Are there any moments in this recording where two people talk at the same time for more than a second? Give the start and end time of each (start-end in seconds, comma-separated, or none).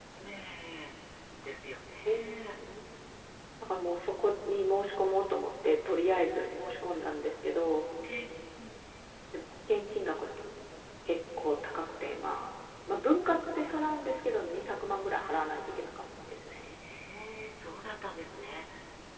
none